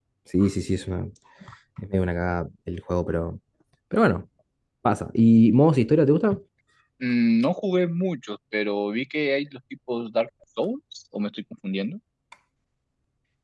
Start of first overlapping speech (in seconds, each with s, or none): none